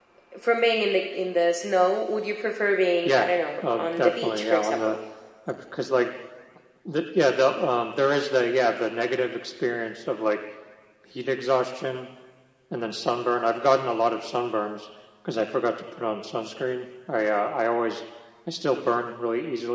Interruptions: present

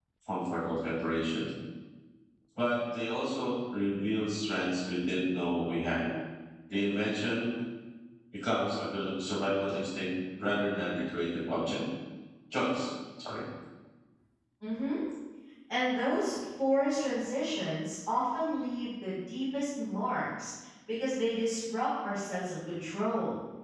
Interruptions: none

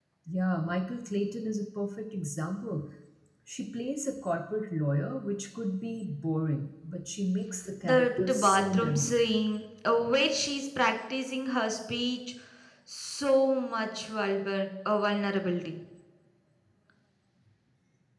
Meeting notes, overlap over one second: present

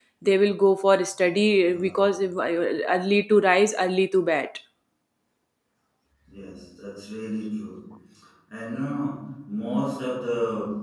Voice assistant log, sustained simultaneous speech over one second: none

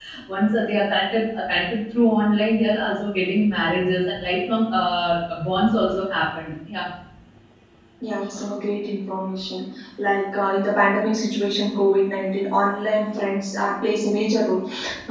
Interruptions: none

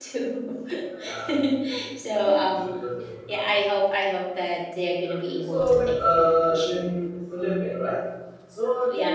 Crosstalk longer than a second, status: present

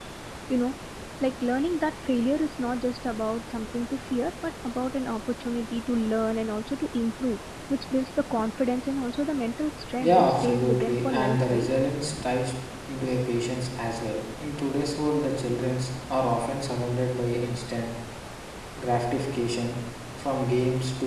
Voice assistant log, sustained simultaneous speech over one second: present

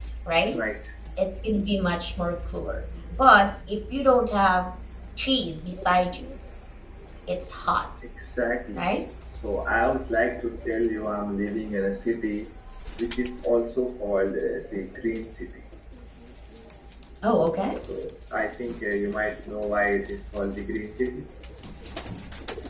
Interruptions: none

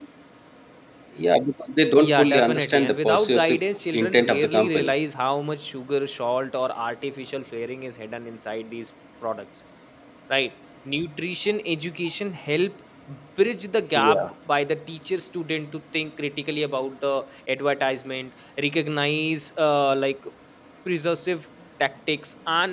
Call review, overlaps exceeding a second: present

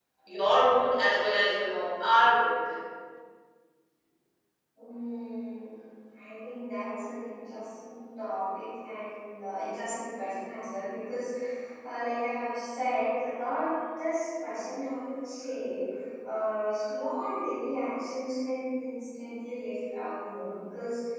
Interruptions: none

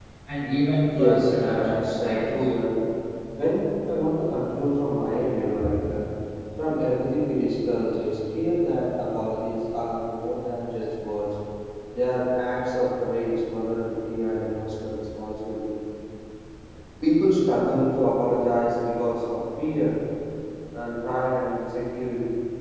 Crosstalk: present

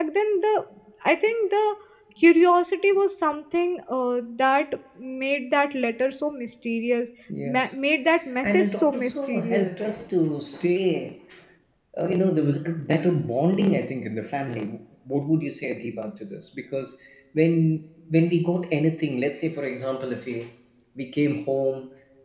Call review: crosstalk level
present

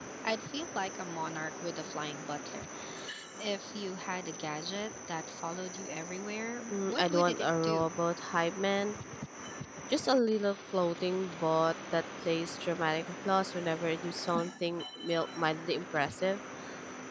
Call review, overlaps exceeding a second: present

